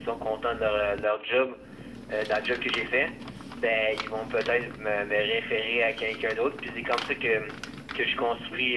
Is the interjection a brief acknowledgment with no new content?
Yes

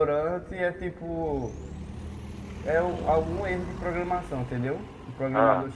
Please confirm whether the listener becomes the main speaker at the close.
No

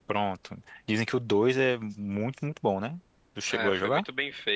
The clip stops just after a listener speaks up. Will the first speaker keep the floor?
No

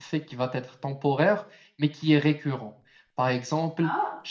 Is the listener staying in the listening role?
Yes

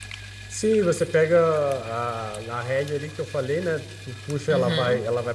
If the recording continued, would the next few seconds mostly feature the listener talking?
No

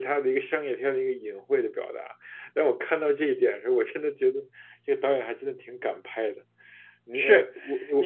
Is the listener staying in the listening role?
No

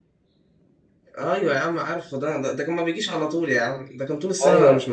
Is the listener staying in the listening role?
No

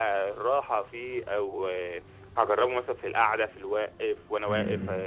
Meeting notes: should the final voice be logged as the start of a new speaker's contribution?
No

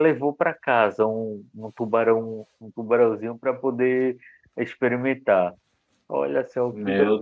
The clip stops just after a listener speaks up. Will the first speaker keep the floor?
No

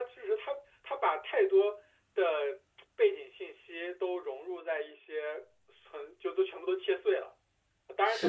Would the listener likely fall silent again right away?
Yes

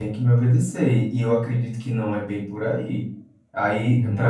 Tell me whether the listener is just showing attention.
Yes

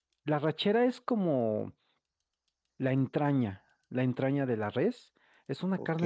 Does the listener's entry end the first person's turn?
No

